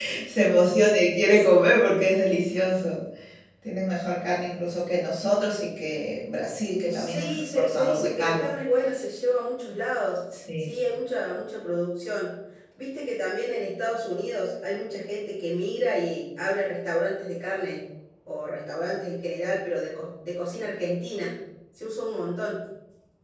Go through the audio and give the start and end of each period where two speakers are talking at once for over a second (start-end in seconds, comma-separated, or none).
6.9-8.5